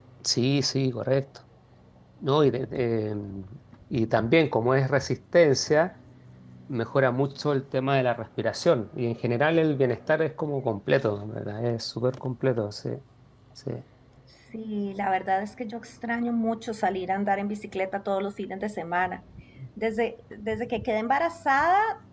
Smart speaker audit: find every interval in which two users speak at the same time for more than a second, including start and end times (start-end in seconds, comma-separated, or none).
none